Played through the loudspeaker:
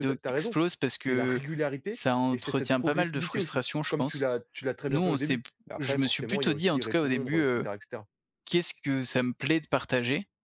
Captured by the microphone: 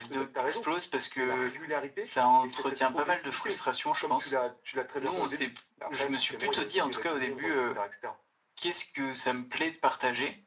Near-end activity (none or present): none